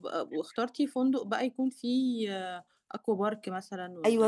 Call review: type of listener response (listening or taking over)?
taking over